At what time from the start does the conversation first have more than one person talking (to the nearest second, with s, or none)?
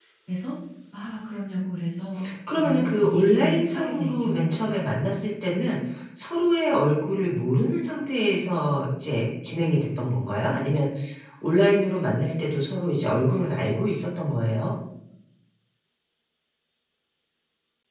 2 s